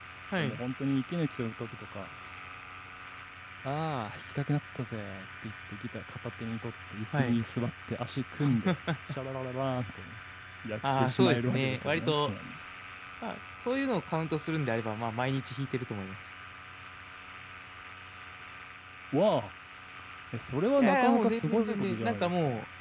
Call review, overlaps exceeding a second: present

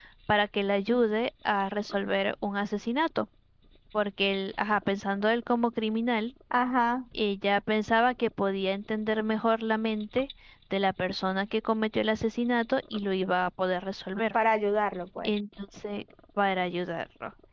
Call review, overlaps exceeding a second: none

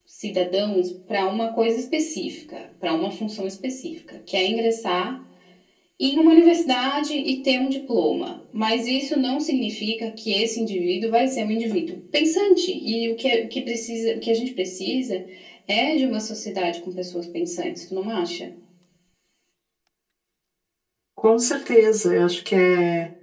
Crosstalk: none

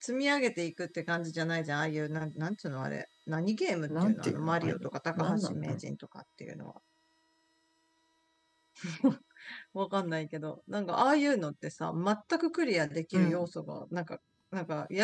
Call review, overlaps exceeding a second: present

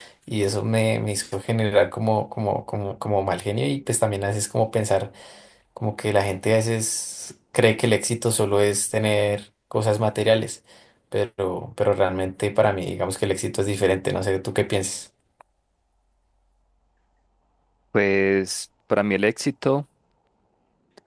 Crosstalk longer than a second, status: none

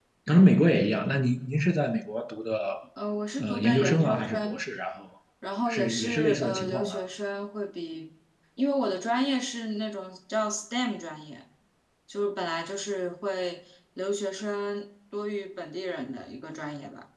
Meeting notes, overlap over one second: present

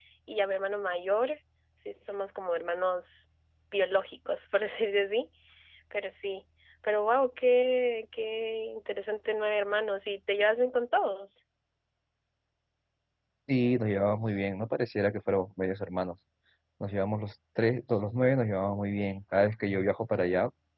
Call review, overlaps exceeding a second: none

